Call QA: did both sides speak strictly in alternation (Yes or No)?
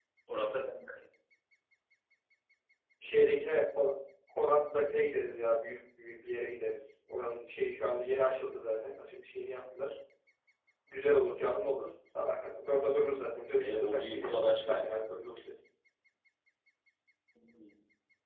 No